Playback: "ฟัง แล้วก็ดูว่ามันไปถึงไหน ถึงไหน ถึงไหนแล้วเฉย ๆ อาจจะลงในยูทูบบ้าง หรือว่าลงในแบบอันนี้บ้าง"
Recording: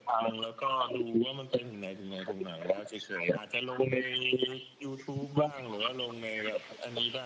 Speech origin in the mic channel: echo only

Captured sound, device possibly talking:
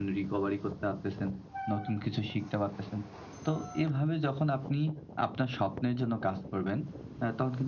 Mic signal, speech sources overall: echo only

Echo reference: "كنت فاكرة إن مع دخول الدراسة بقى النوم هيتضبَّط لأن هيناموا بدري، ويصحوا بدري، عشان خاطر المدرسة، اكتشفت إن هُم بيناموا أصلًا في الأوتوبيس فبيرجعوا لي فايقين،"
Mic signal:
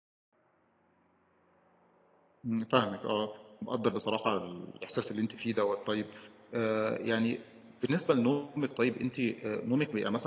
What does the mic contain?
user only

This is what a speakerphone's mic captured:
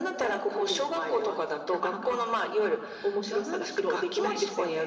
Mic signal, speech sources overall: echo only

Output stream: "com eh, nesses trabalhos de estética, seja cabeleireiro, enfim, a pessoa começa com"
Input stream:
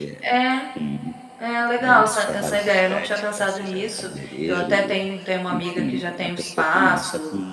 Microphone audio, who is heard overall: both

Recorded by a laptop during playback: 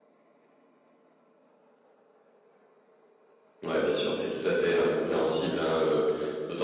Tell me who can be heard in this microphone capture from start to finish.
user only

